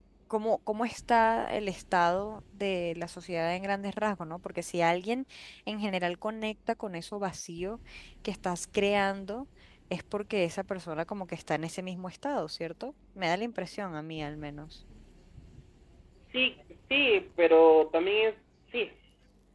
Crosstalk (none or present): none